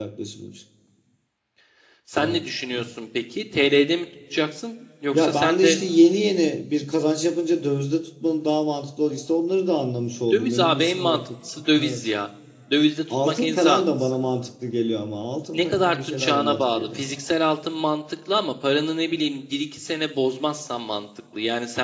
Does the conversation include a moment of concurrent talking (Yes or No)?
Yes